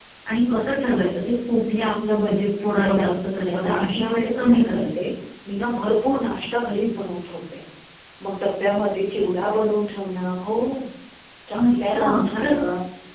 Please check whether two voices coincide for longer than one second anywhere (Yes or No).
Yes